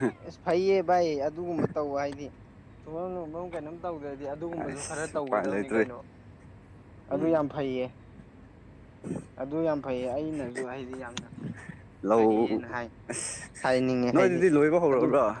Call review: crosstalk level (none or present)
present